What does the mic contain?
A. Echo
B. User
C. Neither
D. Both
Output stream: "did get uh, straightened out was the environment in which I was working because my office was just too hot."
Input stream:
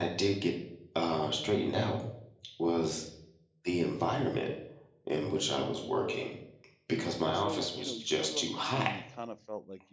D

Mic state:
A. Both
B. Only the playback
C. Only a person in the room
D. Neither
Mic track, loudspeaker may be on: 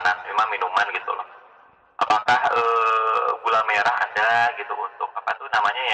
B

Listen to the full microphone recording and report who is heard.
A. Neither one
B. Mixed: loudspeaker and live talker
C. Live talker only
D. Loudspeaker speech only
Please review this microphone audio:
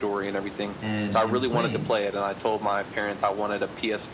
B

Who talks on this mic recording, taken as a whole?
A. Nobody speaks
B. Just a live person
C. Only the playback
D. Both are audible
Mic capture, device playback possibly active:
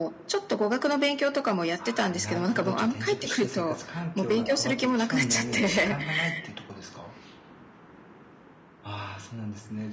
D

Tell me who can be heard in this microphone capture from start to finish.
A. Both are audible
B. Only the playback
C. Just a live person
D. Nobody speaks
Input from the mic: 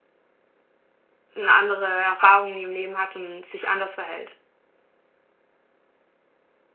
C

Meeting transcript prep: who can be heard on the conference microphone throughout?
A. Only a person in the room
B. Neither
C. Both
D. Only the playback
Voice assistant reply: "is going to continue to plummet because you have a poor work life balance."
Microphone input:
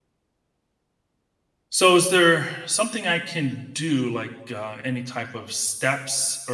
A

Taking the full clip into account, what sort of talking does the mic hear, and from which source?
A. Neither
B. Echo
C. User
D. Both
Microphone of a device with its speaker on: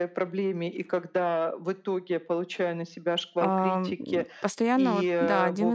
D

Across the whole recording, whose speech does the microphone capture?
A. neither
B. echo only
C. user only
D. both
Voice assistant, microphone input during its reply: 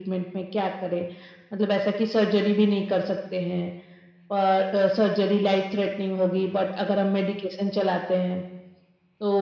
B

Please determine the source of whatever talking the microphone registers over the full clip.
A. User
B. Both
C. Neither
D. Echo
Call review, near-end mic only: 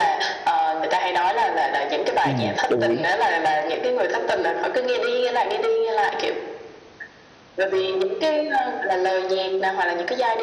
B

